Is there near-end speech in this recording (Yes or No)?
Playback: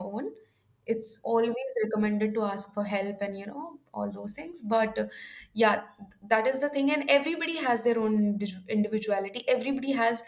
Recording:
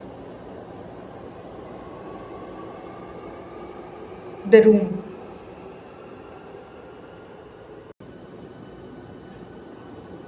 Yes